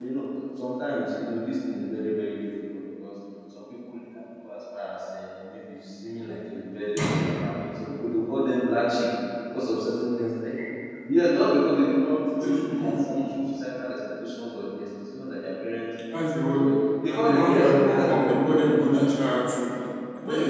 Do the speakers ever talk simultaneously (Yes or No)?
Yes